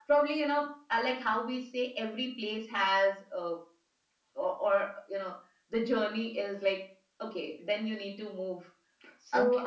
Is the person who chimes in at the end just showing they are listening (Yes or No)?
No